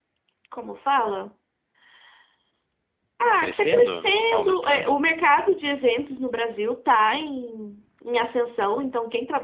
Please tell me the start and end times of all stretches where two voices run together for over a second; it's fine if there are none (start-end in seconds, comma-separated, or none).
3.4-5.0